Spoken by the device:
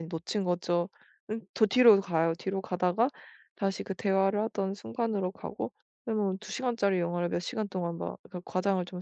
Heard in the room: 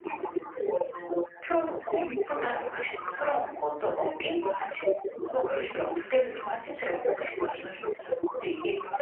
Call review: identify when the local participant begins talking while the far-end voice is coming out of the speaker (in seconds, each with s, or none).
1.4 s